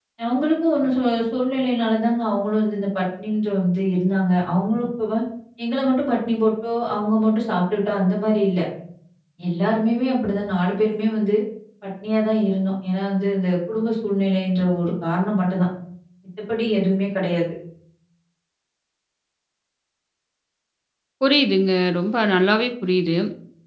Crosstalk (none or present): none